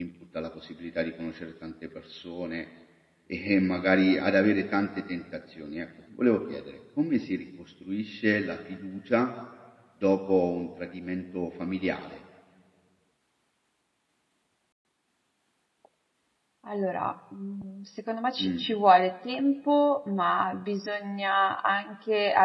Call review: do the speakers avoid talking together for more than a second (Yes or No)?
Yes